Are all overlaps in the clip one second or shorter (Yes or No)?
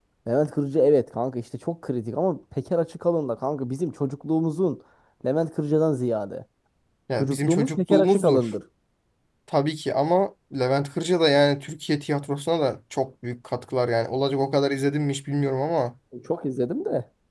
No